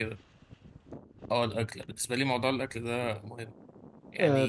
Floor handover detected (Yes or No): Yes